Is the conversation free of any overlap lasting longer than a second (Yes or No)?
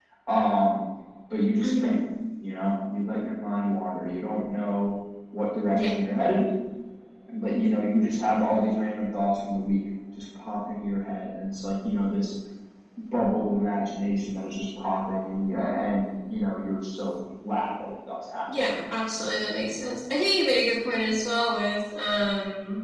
Yes